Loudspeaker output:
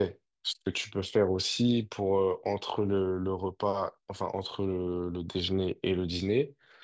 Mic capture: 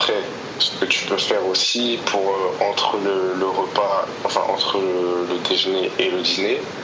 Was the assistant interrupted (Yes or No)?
No